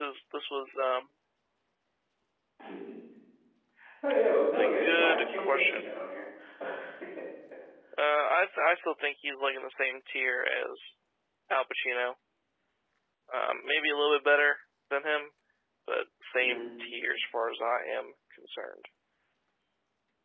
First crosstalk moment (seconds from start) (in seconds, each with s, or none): 4.5 s